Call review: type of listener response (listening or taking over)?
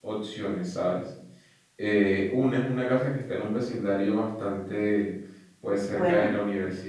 listening